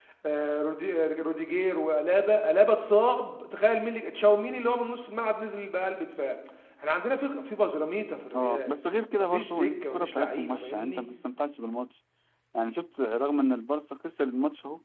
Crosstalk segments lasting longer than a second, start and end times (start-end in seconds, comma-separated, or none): 9.2-11.0